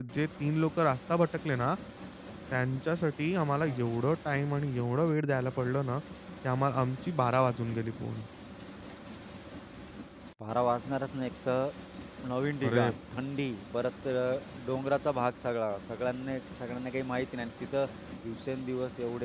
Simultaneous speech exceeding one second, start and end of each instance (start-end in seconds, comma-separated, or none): none